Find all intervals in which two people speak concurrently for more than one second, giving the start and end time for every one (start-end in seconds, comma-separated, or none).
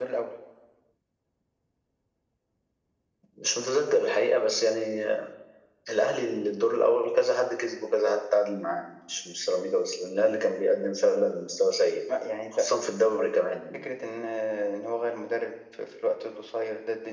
none